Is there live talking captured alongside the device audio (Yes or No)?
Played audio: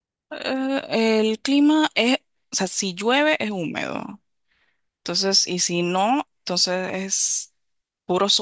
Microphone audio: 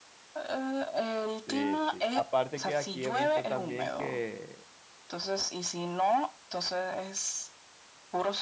Yes